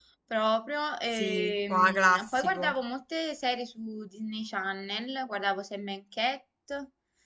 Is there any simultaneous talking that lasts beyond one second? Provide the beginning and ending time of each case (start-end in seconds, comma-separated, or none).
1.1-2.7